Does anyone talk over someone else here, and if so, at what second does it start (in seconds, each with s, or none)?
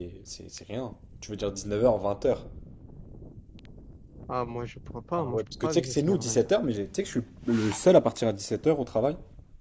5.2 s